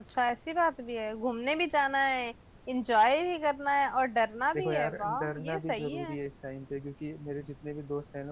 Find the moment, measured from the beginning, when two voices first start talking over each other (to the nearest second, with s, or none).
5 s